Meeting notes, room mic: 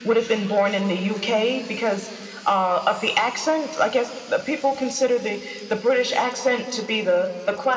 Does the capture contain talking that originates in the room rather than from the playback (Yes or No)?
No